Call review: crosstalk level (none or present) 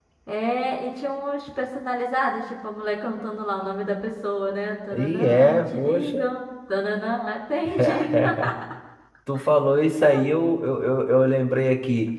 present